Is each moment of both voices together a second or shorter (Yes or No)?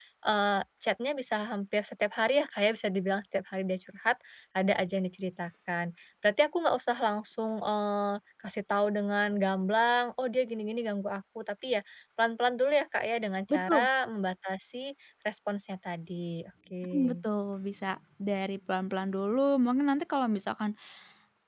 Yes